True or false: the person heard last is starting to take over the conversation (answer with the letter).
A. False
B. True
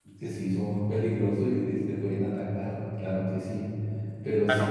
A